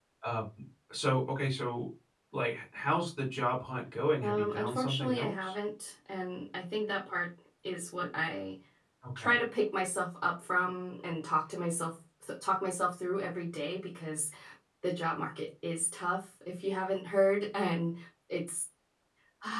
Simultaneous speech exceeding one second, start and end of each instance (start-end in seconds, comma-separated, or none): 4.2-5.5